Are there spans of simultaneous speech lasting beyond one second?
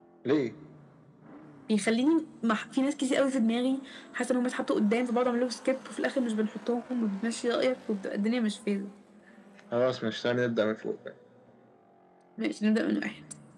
No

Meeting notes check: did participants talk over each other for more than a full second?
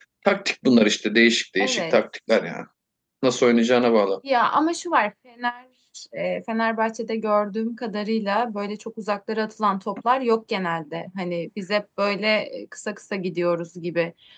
No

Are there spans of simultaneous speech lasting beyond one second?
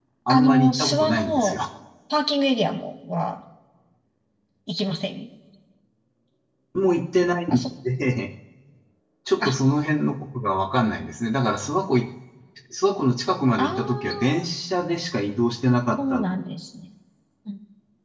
Yes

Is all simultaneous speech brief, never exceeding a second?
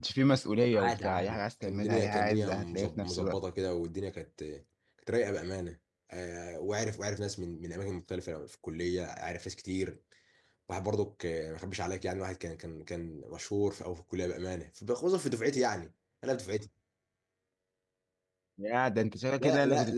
No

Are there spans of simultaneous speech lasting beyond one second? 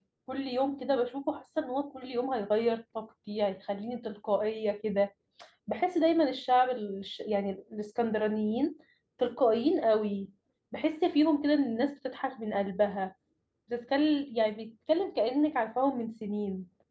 No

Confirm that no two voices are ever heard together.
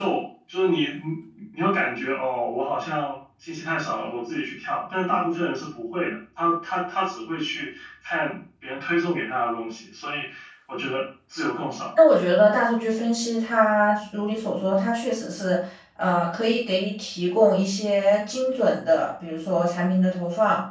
Yes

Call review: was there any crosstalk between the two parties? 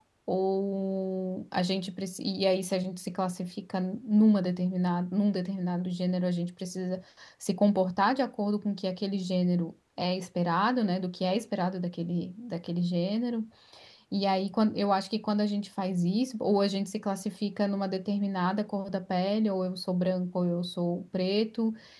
No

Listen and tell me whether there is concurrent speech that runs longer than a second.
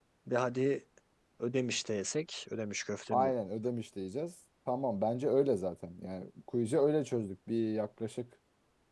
No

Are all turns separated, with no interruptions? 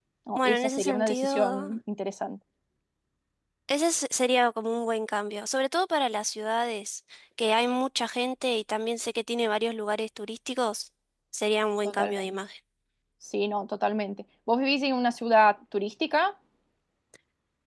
No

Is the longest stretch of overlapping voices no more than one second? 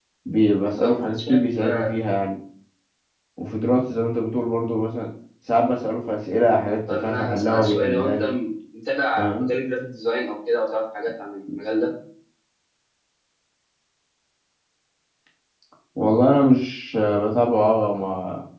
No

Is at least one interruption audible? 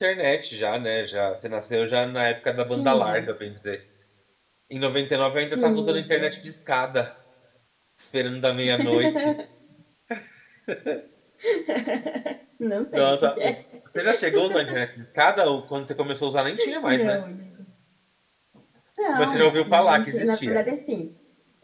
Yes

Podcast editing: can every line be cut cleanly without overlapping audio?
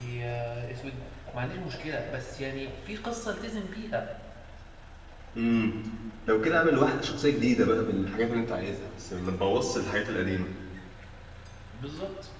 Yes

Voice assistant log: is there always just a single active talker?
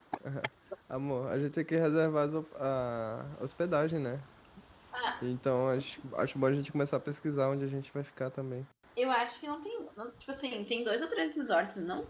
Yes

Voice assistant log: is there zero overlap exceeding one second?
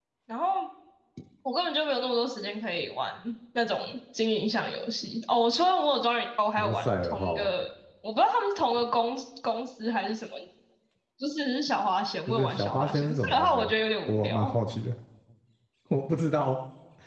No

